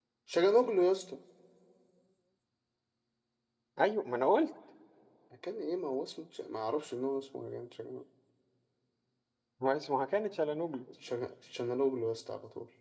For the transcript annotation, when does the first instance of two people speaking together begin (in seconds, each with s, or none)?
none